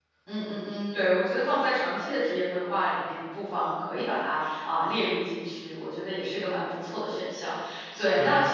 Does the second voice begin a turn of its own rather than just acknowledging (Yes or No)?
No